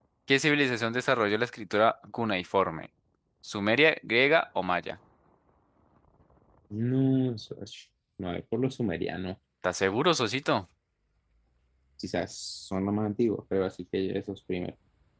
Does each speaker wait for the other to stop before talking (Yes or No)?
Yes